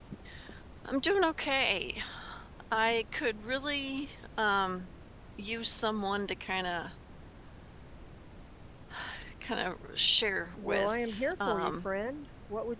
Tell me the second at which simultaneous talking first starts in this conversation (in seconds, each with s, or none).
10.6 s